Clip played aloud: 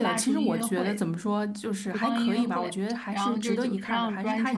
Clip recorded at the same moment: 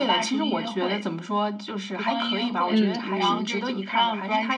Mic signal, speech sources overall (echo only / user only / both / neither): both